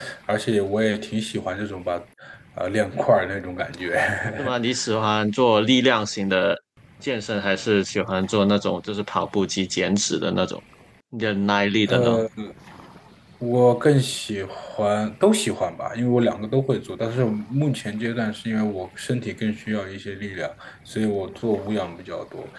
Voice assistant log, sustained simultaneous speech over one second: none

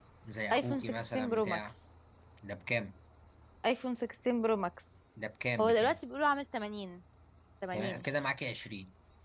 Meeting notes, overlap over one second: present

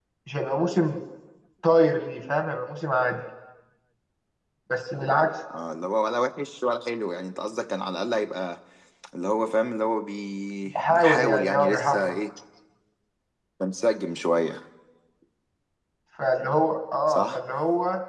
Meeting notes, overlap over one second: present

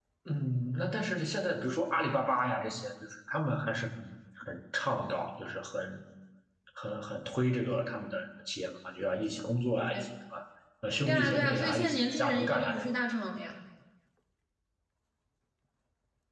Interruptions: present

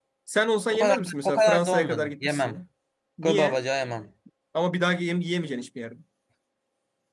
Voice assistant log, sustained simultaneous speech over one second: present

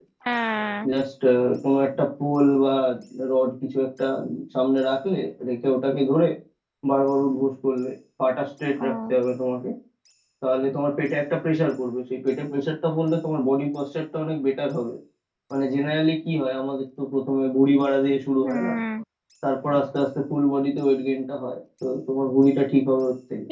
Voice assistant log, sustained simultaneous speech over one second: none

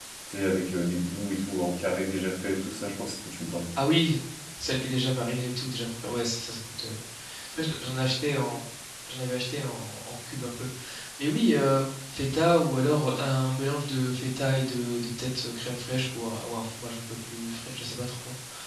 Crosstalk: none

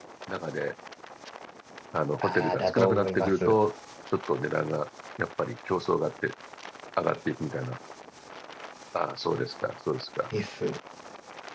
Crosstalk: present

